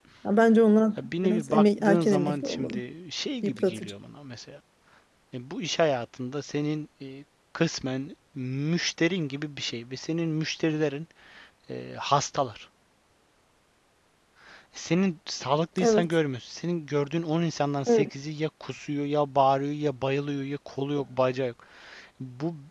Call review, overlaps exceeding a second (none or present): present